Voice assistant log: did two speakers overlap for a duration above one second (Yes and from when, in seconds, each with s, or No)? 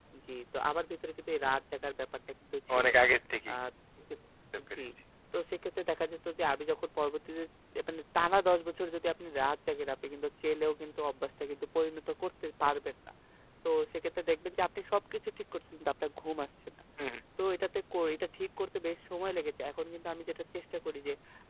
No